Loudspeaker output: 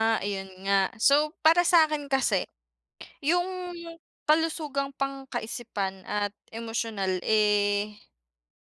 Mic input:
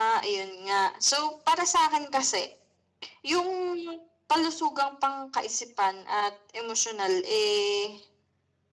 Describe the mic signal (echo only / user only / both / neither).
echo only